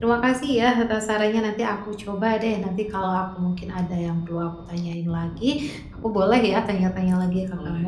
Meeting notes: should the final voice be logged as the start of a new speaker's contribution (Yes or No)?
Yes